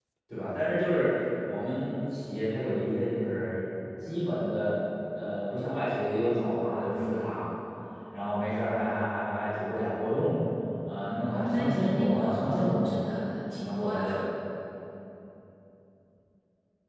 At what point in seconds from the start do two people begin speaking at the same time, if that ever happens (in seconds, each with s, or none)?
11.2 s